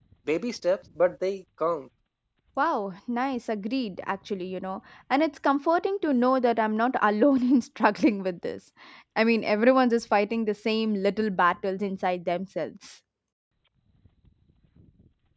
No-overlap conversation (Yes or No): Yes